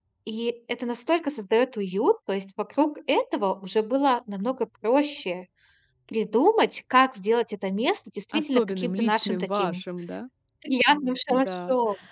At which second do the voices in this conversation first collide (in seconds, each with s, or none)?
8.3 s